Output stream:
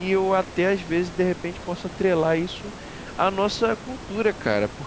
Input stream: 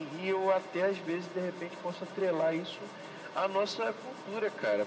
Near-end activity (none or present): none